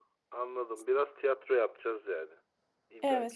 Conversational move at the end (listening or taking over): taking over